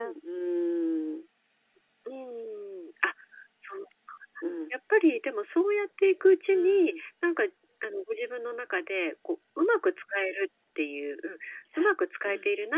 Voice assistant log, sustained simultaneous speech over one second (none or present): none